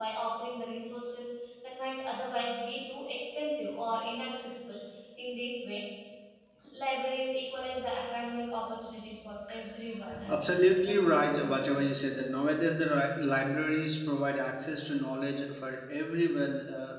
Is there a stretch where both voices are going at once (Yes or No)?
Yes